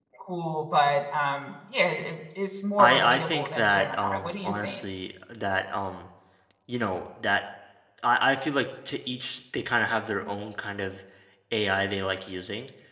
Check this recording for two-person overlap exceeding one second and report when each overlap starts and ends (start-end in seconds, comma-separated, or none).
2.8-4.8